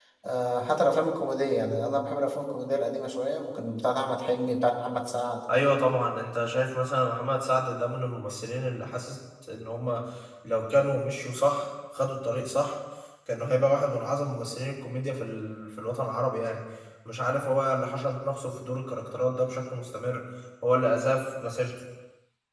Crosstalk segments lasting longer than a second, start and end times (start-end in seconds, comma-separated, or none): none